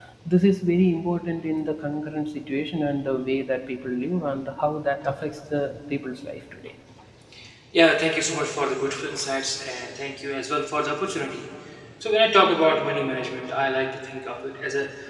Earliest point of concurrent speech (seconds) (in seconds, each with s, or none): none